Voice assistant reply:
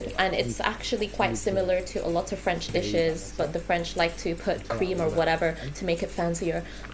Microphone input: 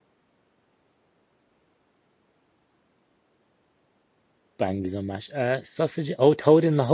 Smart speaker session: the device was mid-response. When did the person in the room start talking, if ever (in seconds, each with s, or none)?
4.6 s